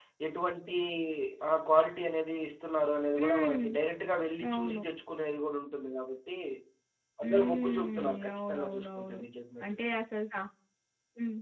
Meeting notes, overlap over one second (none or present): present